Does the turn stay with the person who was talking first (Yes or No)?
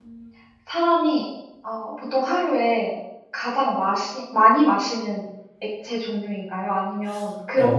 No